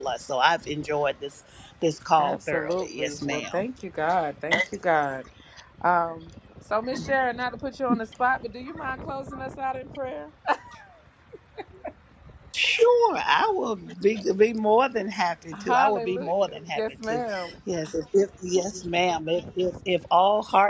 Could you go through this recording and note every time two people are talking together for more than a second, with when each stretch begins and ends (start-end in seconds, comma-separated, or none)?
2.2-3.6, 15.5-17.2